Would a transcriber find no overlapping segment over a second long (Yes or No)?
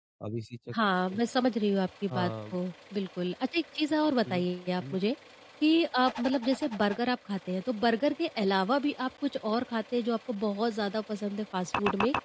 Yes